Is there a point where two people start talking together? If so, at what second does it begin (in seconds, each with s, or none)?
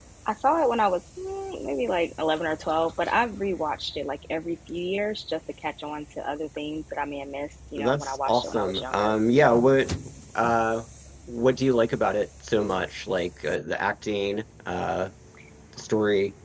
7.8 s